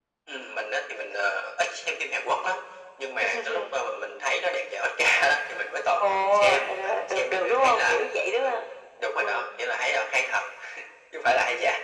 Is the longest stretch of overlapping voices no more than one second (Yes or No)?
No